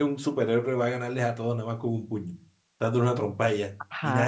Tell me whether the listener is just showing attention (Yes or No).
No